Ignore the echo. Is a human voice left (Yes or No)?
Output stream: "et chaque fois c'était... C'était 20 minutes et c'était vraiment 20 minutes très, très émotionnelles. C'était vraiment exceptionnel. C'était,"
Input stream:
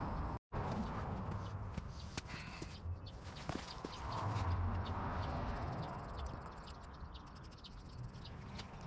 No